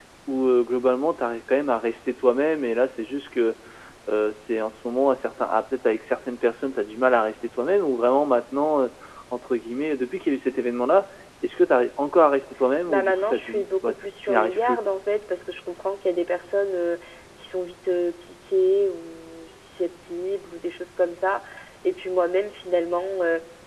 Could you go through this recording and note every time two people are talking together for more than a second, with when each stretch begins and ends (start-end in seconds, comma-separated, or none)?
12.9-14.8